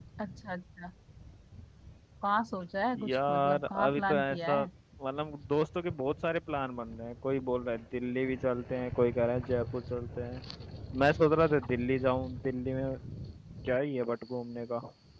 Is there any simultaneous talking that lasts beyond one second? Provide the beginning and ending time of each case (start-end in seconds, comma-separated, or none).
3.0-4.6